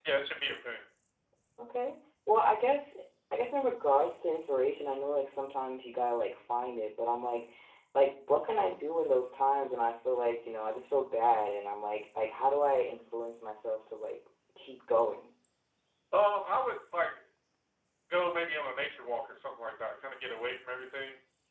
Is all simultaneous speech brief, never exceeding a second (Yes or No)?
Yes